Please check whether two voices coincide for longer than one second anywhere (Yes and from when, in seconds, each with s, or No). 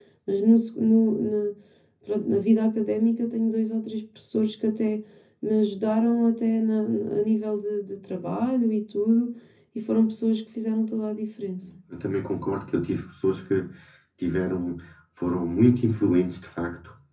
No